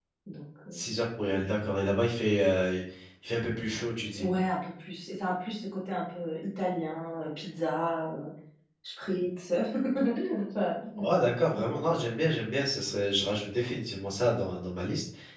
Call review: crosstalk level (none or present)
none